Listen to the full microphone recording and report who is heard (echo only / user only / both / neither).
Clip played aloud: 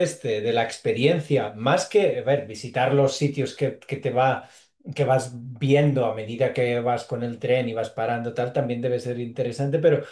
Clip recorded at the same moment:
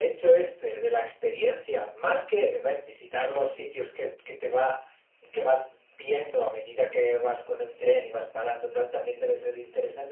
echo only